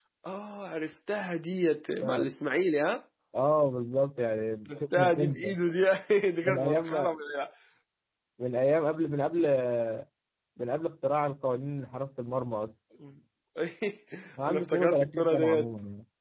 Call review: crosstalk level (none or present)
present